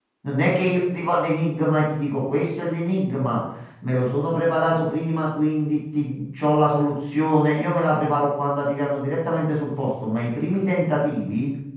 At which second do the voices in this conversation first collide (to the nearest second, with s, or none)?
none